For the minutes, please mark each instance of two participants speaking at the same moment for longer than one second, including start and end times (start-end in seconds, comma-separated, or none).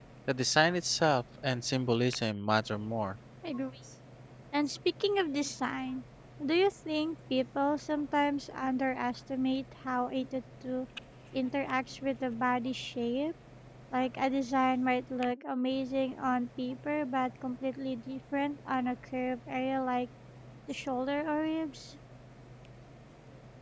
none